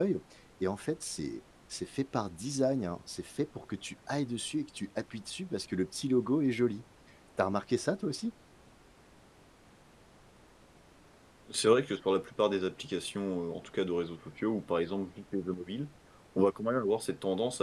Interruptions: none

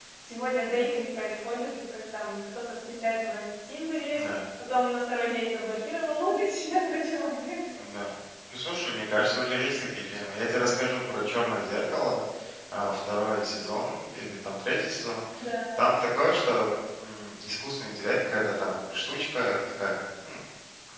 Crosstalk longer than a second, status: none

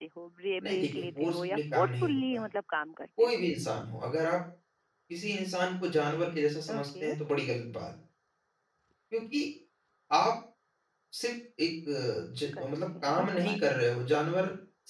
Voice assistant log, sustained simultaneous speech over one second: present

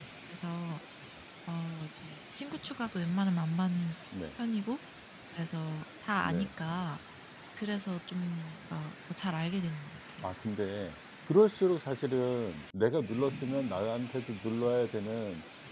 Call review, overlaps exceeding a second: none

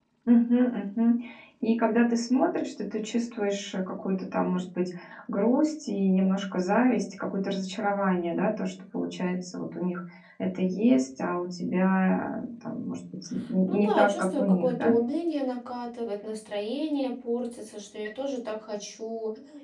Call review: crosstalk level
present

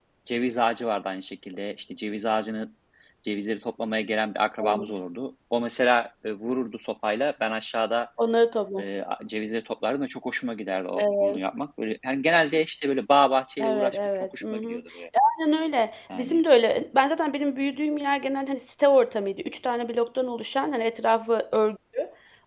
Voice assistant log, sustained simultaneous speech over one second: present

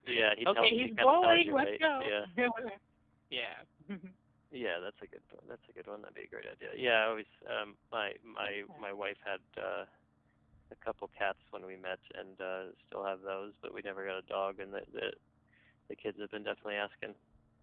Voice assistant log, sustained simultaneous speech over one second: present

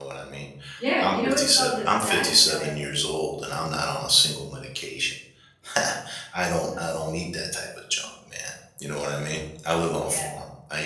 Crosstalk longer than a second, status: present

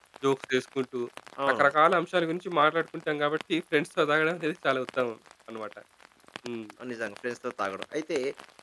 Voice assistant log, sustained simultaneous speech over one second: none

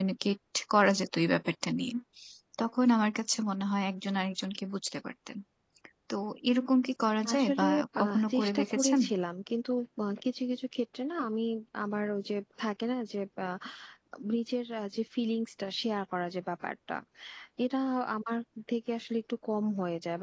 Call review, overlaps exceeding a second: present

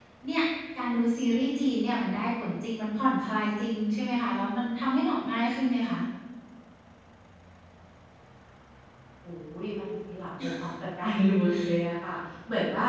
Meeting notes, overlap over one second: none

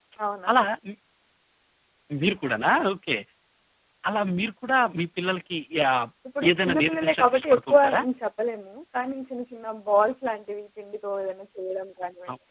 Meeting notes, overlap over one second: present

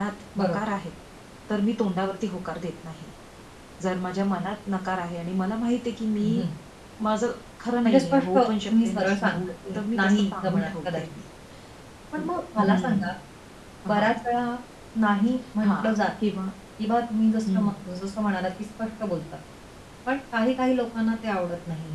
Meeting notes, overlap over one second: present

